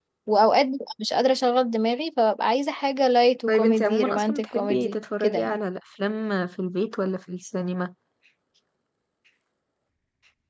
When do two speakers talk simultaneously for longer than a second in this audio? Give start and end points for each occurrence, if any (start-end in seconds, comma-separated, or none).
3.5-5.6